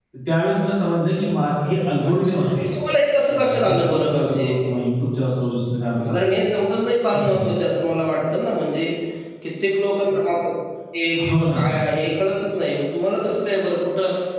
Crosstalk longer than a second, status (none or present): present